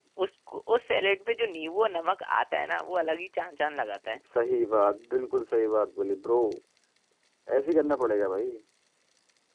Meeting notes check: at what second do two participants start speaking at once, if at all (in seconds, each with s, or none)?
none